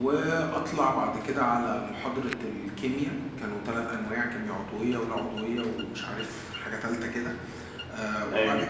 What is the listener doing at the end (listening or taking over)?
listening